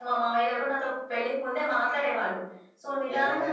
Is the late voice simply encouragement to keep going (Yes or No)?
Yes